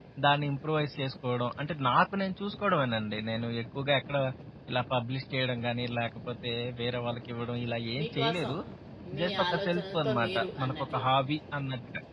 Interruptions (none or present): present